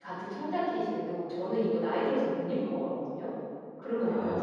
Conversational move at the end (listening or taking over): taking over